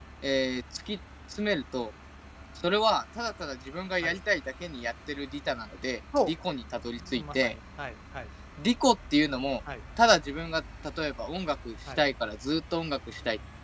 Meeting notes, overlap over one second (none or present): none